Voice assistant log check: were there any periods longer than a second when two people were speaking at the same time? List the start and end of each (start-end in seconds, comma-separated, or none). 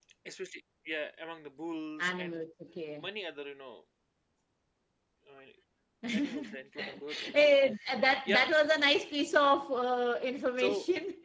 6.1-7.5